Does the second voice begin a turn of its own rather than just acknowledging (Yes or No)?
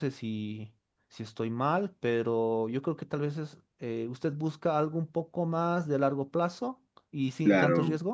Yes